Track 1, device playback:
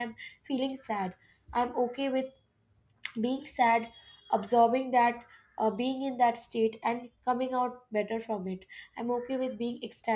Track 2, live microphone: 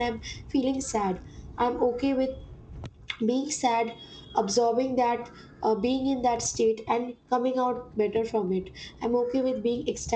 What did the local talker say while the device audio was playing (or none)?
none